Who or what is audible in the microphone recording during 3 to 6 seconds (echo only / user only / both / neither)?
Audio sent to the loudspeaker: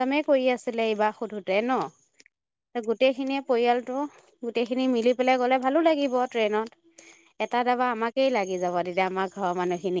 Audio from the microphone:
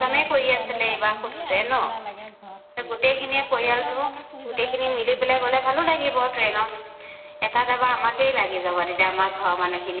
both